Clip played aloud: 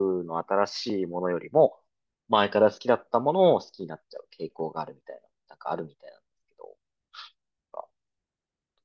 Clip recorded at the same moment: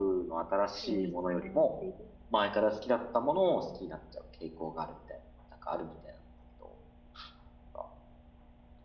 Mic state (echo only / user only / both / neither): both